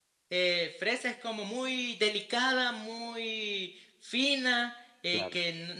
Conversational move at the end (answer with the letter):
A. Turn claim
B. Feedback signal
B